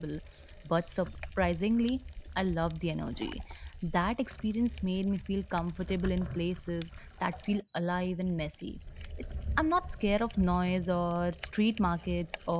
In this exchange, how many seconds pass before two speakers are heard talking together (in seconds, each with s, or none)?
none